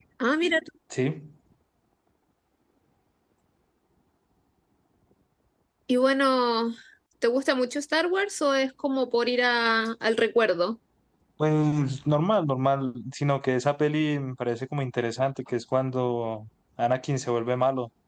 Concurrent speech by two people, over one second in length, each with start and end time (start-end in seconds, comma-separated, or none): none